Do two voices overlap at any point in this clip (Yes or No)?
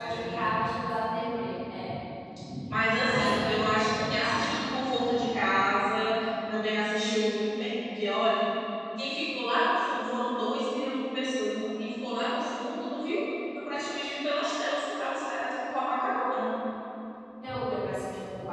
Yes